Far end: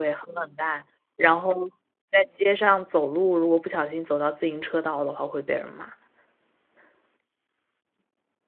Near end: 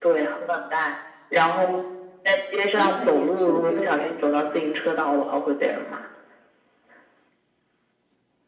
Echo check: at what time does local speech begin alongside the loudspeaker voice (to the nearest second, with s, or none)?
3 s